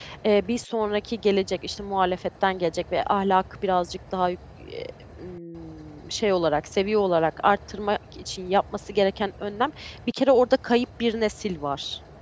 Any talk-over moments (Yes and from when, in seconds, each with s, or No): No